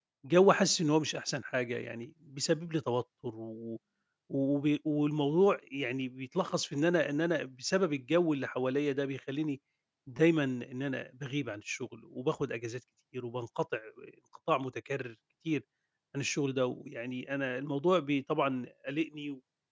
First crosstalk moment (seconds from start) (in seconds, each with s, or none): none